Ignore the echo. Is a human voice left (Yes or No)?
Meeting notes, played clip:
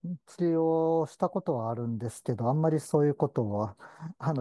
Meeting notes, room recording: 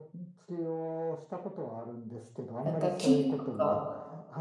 Yes